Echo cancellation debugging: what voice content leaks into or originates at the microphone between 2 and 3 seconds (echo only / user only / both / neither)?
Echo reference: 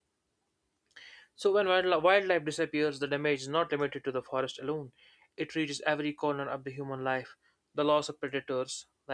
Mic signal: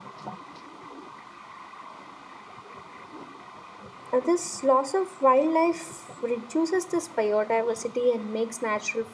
neither